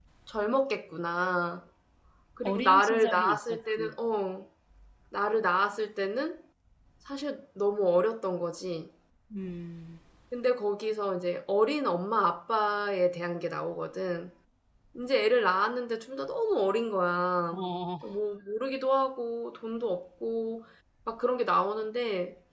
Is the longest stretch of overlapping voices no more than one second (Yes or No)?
No